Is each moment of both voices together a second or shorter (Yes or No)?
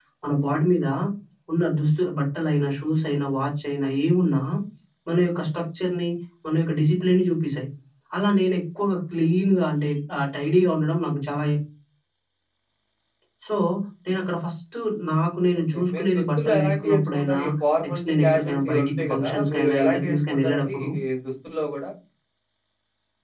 No